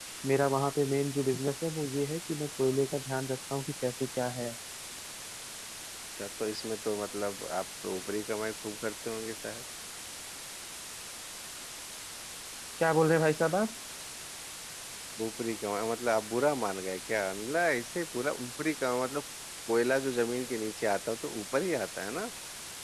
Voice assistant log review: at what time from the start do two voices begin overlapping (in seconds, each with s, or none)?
none